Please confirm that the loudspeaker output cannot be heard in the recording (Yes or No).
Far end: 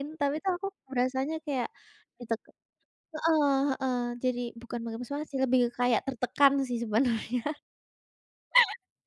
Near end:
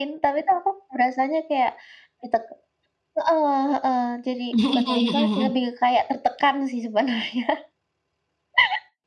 No